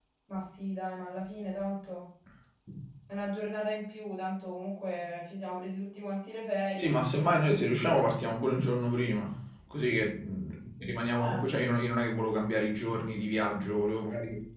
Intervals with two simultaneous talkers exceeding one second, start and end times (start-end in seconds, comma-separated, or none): none